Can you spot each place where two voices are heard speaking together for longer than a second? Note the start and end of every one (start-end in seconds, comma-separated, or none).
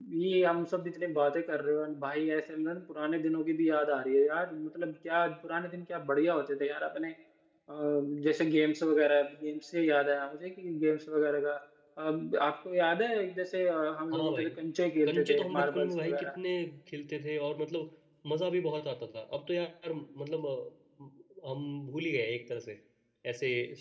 15.1-16.4